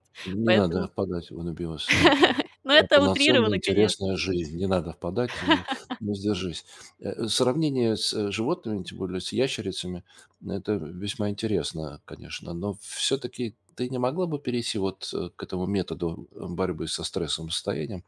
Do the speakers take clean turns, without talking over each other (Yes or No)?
No